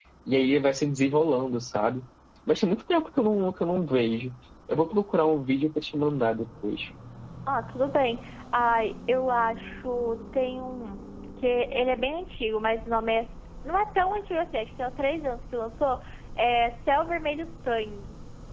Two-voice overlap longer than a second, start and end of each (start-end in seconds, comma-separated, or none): none